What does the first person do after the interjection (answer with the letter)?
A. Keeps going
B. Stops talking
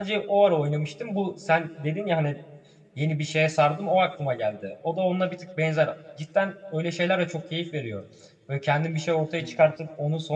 A